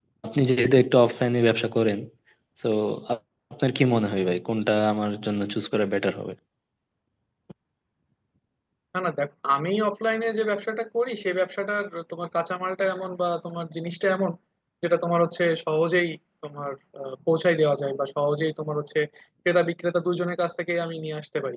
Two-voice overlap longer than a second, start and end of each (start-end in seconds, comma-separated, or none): none